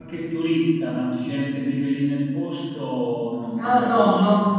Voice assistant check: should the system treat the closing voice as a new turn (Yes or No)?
Yes